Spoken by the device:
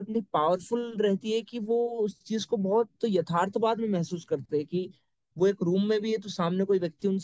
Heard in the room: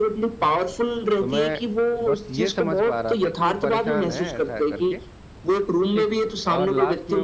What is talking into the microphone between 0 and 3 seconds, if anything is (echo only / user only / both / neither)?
both